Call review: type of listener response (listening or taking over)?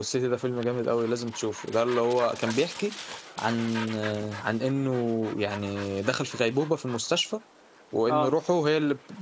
listening